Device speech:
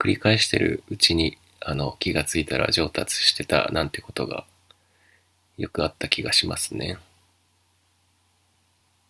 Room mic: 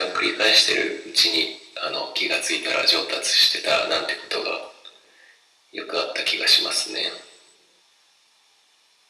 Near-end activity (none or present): none